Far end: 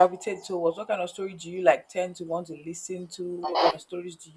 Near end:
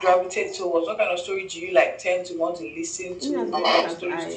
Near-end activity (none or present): present